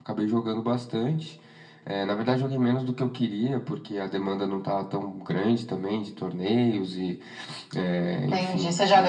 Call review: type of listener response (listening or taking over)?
taking over